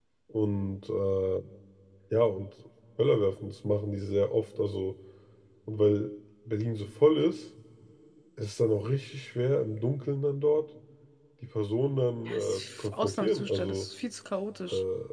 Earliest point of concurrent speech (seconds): 12 s

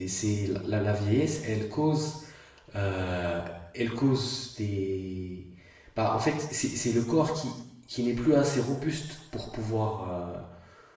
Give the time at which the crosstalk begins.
none

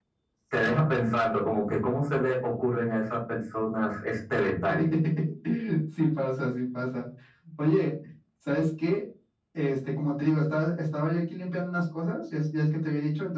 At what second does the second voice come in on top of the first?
none

